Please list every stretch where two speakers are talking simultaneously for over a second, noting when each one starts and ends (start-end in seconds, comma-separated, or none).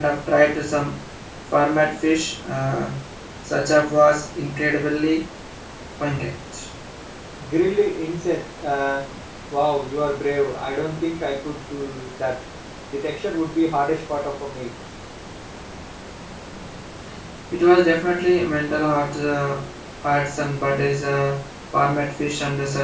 none